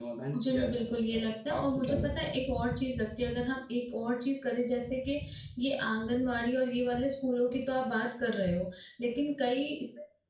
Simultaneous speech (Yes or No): Yes